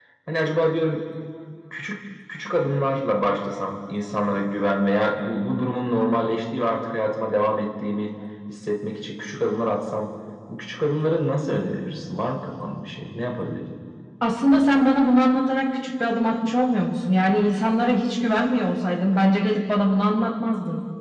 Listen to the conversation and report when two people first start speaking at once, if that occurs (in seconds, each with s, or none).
none